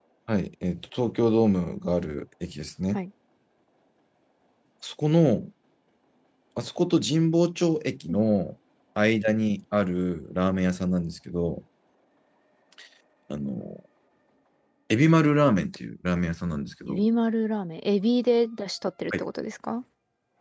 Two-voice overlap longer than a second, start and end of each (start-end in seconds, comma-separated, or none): none